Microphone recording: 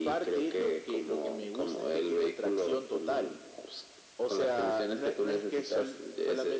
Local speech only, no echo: none

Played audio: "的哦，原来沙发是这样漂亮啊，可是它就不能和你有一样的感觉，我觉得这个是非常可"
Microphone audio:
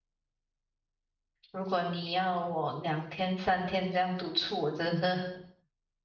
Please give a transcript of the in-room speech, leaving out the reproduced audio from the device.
如果你要我两天三天这样独处，我真是

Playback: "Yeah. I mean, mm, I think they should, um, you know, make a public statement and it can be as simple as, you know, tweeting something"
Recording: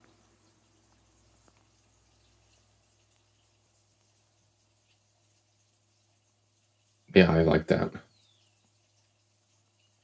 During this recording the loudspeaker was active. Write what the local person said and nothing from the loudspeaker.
Yeah, I like that.

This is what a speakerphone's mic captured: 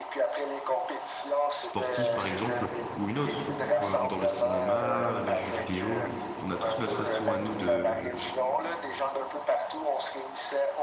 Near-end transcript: sportive par exemple, ou une autre, comme dans le cinéma, les jeux vidéo, on a tous notre façon à nous de,

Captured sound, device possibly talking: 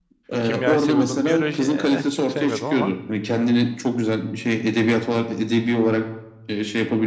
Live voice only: kimyayı seviyordum, biyoloji eh, çok sevmiyordum ama

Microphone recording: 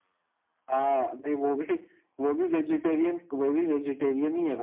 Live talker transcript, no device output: none

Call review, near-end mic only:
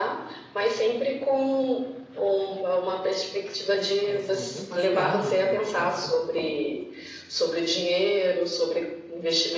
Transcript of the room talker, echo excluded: É esse nome mesmo? Acho que é, né? Do, do Kafka.

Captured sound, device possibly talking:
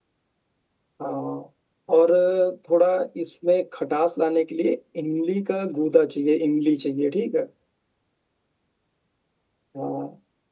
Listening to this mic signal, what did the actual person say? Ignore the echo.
none

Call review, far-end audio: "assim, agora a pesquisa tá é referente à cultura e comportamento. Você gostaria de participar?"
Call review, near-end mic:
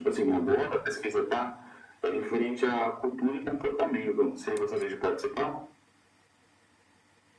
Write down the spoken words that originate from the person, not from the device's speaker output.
none

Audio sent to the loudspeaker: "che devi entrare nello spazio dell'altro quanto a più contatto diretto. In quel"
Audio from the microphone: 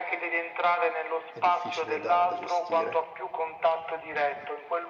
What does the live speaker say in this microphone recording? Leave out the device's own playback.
è difficile da, da gestire.

